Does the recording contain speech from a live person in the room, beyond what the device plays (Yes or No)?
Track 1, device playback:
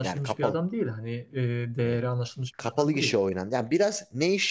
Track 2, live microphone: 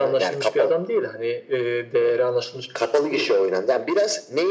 No